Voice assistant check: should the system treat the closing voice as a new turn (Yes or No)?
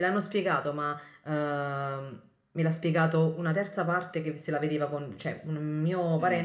No